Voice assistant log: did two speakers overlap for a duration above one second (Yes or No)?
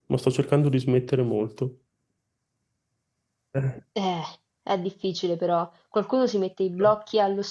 No